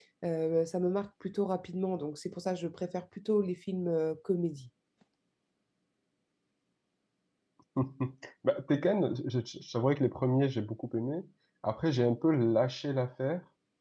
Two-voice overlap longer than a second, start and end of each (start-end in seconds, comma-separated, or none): none